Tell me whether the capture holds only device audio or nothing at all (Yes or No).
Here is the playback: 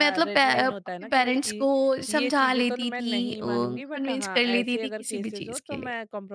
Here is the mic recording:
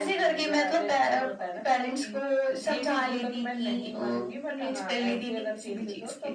Yes